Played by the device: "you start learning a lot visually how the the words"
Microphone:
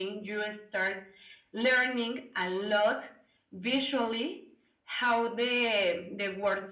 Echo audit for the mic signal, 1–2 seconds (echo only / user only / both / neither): echo only